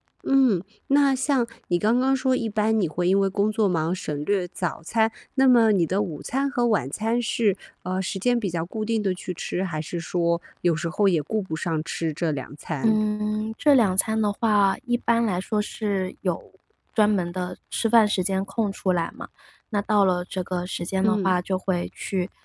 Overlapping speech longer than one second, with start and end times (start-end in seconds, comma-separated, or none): none